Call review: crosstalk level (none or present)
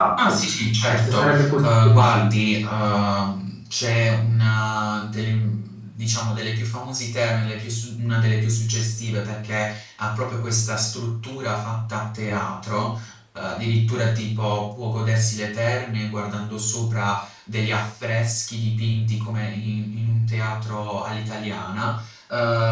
present